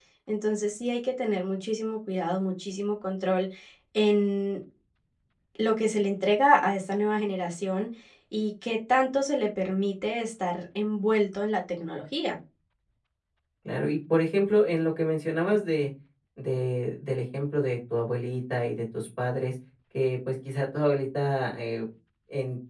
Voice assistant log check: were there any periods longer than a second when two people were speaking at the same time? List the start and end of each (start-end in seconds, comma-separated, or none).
none